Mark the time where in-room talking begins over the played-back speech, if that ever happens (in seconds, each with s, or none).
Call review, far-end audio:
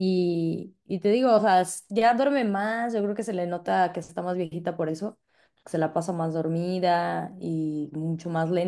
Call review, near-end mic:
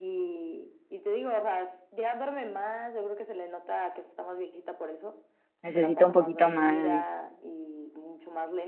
5.6 s